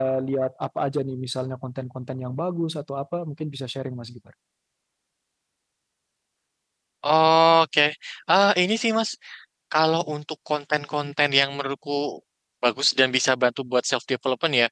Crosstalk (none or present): none